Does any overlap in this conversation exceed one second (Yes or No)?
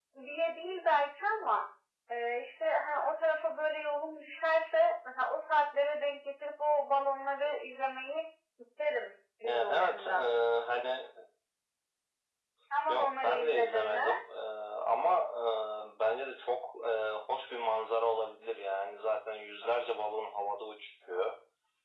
Yes